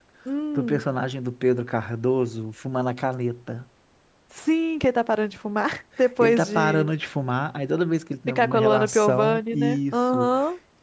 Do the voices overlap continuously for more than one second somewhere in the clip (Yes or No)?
Yes